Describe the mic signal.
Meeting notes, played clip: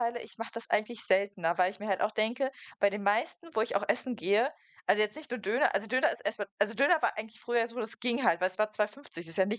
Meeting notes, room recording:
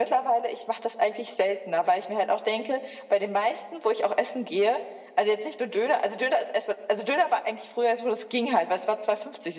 echo only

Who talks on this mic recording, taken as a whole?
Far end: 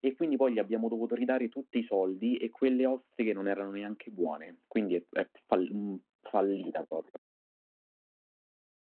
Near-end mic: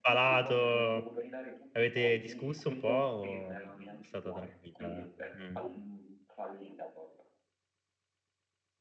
both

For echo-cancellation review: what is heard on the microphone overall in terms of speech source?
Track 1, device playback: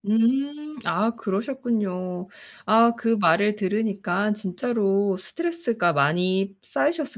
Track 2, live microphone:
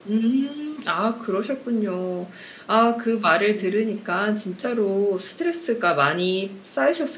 both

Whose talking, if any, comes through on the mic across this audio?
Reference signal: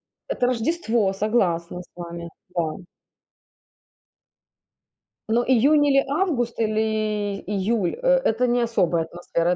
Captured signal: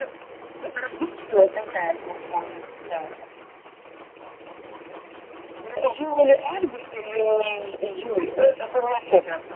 echo only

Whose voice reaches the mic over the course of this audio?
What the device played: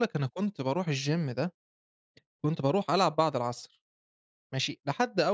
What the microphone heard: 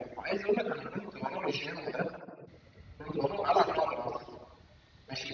echo only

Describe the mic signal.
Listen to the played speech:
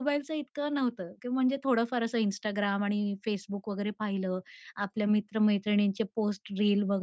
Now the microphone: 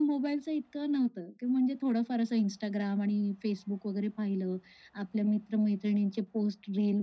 echo only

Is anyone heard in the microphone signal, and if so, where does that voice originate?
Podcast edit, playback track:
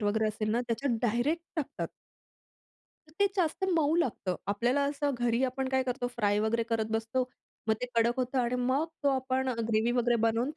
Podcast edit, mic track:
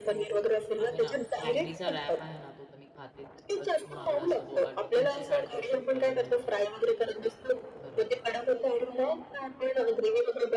both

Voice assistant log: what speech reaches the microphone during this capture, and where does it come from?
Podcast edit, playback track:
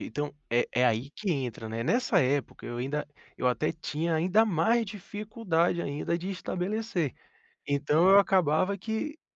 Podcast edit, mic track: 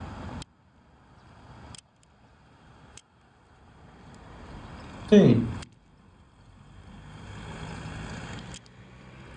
user only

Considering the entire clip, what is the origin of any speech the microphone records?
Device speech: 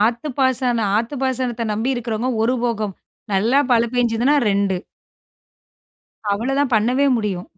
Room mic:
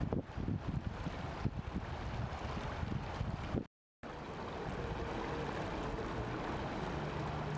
neither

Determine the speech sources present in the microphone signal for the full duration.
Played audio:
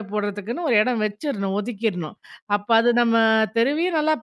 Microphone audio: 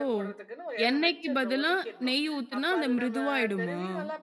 both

